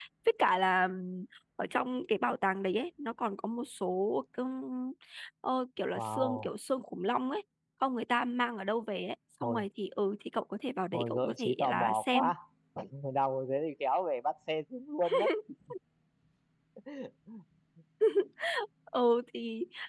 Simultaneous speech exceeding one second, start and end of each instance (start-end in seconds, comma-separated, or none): 10.9-12.3